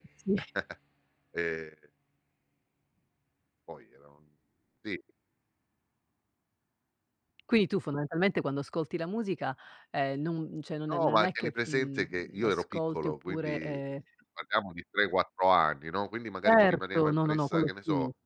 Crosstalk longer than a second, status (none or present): present